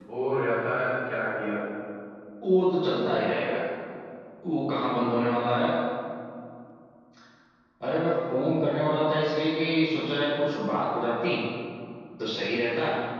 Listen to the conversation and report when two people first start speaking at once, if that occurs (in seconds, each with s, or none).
none